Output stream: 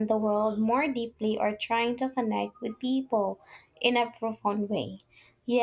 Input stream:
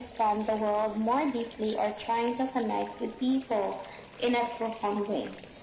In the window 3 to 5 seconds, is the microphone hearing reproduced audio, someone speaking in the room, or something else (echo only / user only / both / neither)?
echo only